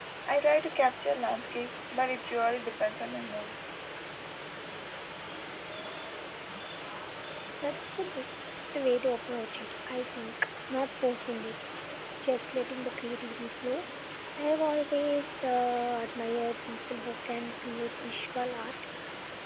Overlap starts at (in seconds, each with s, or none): none